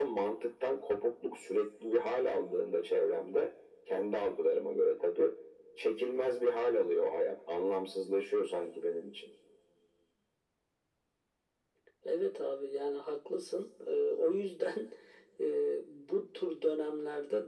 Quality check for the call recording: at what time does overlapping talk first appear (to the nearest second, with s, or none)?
none